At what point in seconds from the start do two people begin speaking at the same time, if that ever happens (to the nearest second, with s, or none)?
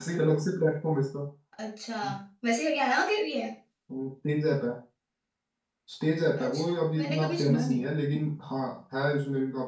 6 s